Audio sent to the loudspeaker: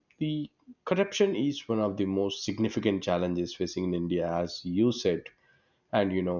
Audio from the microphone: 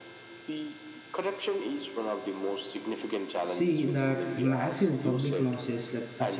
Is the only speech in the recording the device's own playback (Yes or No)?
No